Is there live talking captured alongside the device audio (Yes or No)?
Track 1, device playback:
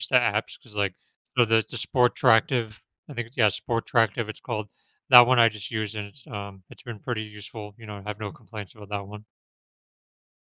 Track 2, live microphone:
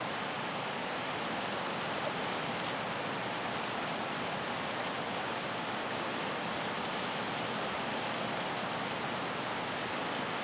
No